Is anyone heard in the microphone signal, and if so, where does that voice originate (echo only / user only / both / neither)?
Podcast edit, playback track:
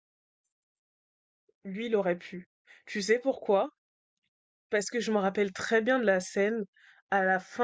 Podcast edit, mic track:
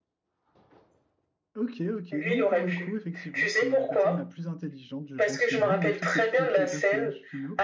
both